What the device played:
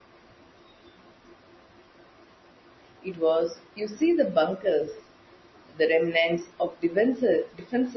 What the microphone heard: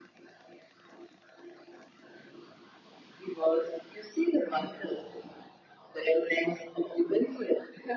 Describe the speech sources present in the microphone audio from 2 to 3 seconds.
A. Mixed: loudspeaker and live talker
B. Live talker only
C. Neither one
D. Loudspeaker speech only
C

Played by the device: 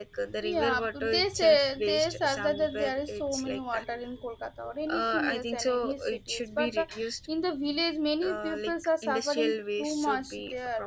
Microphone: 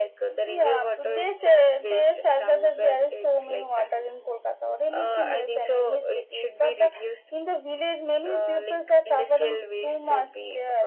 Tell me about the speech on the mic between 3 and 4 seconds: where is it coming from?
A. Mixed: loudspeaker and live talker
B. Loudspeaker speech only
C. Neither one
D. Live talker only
B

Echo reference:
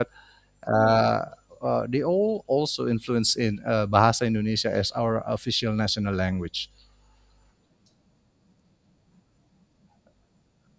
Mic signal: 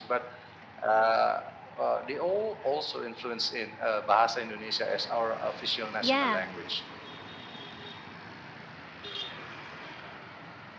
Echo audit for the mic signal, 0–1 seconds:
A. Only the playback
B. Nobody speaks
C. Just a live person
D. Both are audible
A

